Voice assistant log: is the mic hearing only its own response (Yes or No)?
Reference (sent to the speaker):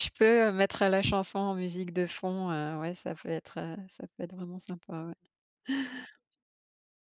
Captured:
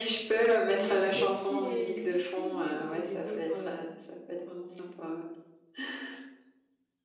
No